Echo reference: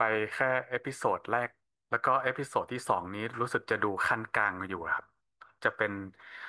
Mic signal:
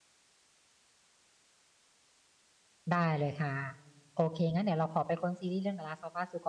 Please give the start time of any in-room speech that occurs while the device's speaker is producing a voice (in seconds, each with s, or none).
2.9 s